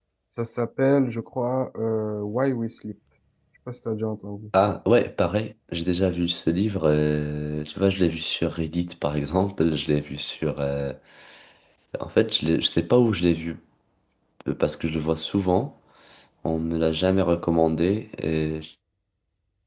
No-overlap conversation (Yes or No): Yes